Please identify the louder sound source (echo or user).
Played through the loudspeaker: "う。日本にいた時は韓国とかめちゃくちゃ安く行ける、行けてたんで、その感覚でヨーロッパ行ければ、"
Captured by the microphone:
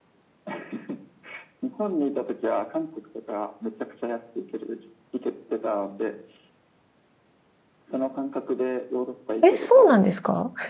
user